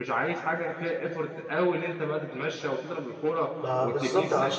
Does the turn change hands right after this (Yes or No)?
Yes